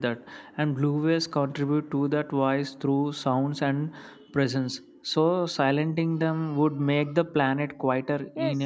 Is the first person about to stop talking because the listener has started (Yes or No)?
Yes